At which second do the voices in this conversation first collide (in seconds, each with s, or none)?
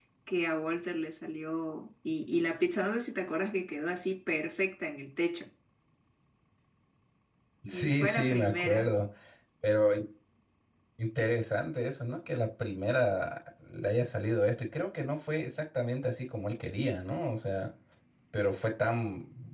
7.7 s